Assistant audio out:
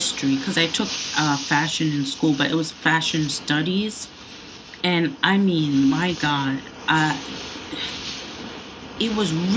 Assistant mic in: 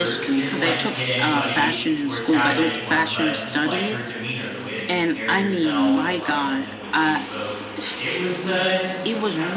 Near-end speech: present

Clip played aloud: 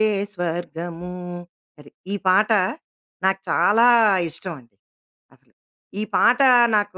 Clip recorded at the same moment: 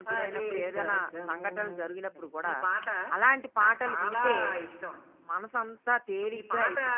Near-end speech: present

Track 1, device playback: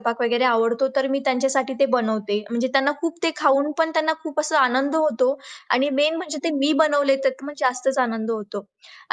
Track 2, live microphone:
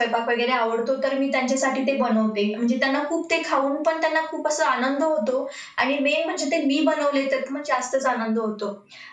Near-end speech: none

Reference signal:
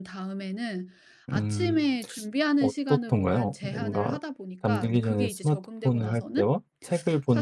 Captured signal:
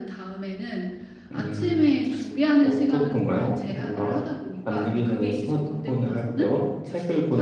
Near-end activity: none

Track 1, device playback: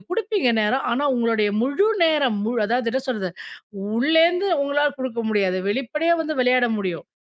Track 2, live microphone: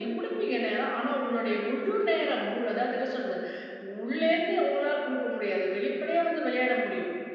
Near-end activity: none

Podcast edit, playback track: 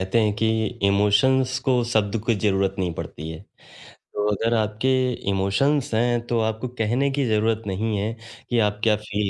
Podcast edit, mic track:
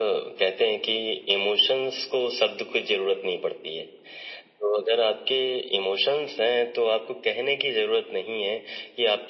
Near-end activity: none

